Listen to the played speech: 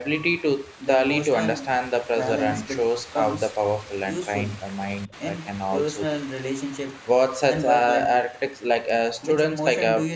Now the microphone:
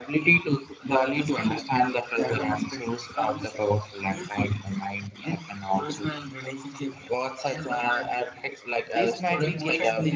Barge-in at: 9 s

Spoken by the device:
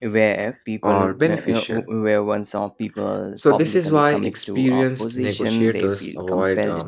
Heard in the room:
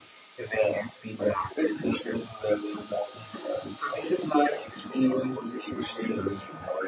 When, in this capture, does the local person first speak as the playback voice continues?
none

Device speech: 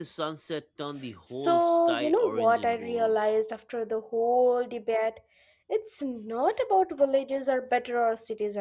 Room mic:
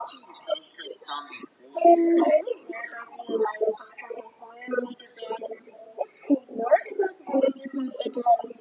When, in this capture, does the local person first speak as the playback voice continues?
none

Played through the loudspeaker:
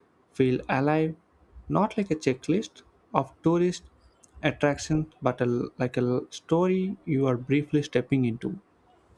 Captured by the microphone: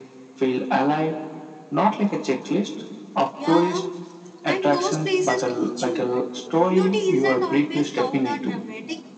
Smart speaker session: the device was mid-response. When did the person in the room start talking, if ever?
3 s

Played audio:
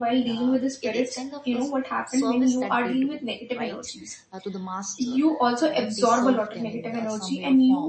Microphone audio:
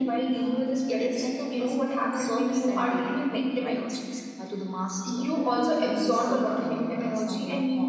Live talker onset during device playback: none

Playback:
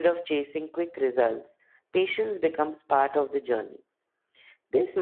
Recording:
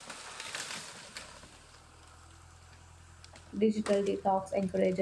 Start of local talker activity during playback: 4 s

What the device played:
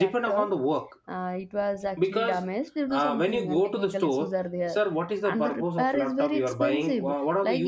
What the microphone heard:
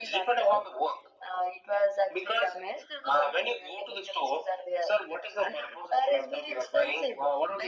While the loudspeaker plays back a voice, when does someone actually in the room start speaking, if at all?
none

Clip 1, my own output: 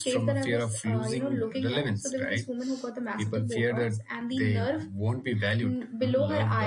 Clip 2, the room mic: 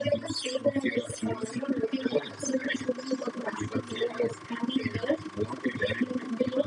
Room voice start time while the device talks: none

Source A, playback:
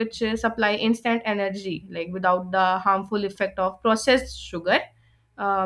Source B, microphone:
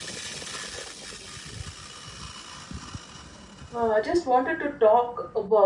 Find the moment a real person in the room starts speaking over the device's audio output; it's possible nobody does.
4 s

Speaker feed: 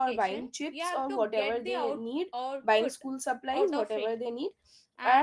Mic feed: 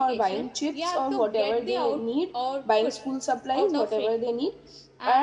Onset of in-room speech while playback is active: none

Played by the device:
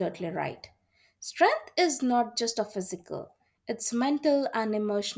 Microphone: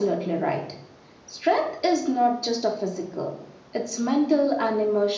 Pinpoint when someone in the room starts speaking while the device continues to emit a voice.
none

